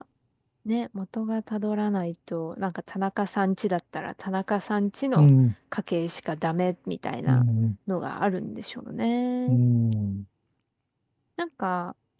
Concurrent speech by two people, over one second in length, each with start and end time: none

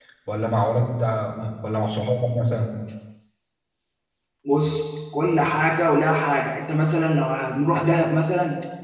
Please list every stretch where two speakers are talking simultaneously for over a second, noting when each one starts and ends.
none

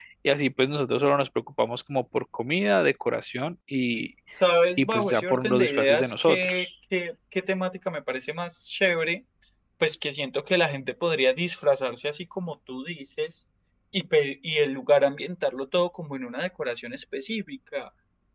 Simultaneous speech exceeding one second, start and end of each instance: 4.8-6.7

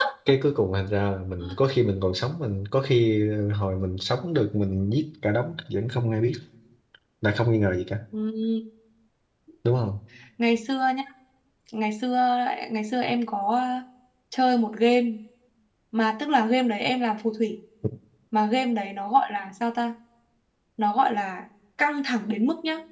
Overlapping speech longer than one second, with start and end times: none

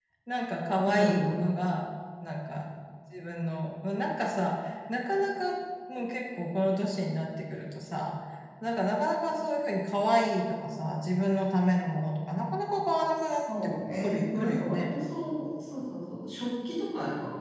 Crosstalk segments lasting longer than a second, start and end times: 13.2-14.8

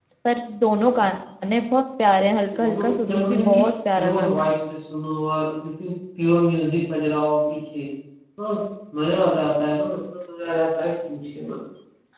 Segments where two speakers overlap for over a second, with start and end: 2.5-4.5

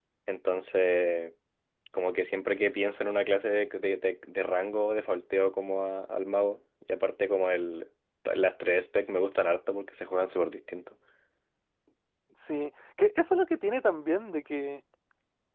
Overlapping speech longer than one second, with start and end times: none

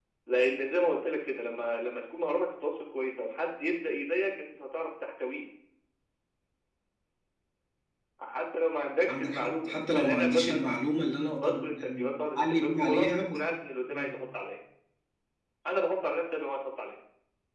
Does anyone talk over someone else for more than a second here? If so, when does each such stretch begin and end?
9.1-10.6, 11.4-13.4

